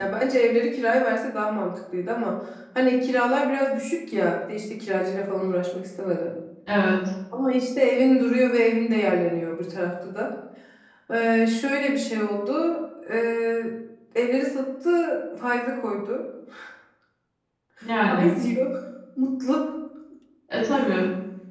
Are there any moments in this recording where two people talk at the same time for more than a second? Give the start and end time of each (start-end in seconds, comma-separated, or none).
none